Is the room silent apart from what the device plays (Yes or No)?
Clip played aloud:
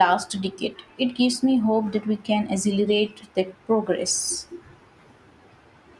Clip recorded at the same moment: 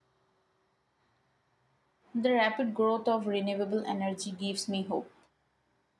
No